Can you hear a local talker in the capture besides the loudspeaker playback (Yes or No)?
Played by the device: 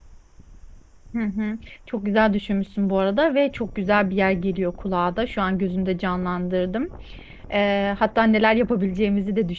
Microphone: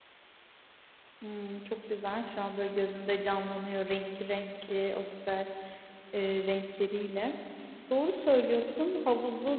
Yes